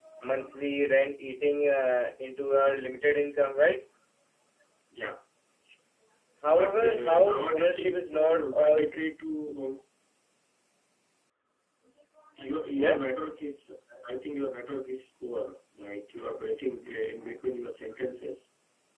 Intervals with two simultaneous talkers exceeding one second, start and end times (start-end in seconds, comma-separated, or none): 6.5-8.8